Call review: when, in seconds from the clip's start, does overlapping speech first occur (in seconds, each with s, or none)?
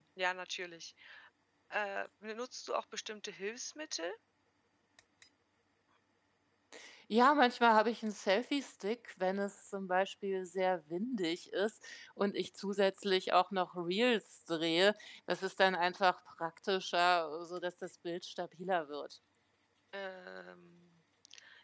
none